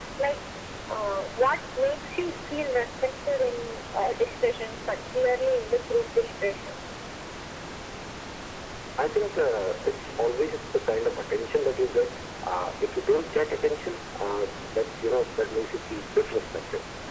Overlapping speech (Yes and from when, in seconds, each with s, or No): No